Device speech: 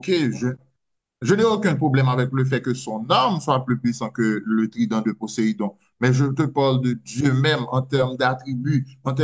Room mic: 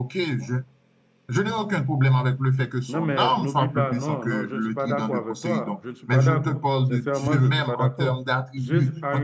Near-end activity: present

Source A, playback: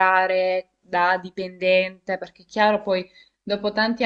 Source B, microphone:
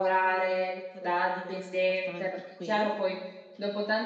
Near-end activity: present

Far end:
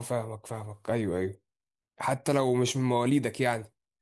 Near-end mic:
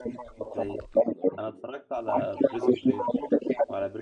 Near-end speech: present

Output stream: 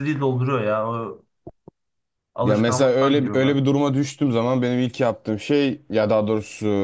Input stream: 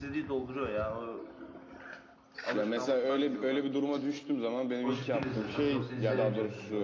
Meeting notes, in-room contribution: present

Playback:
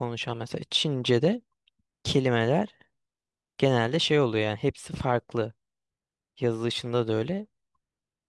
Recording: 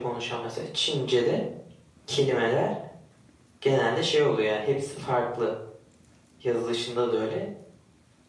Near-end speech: none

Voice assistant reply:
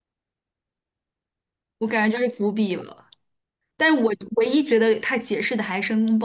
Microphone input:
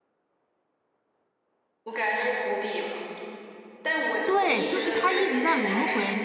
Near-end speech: present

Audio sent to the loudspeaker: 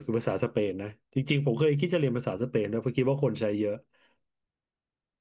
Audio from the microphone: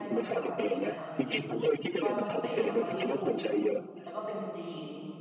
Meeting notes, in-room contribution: present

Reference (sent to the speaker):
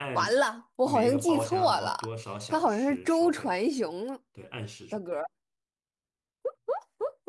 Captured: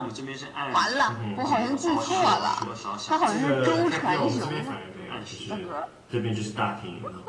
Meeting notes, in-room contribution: present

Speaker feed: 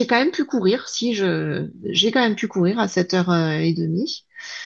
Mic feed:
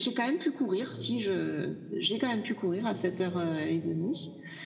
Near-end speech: present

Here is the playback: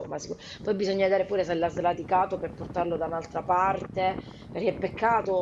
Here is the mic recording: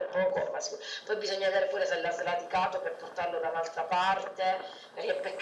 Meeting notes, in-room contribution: none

